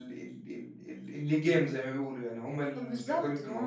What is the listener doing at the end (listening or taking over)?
taking over